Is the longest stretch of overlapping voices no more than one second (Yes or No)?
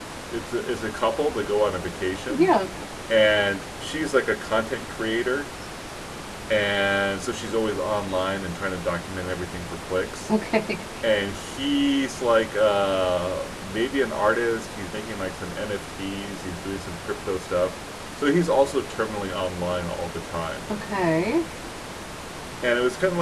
Yes